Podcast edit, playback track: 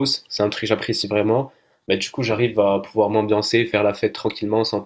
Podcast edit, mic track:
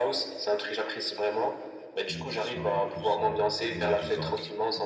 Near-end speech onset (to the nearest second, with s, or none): 2 s